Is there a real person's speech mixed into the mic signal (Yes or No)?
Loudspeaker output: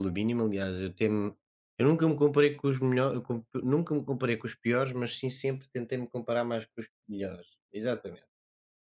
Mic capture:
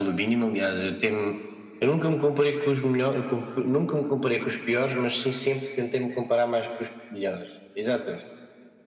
No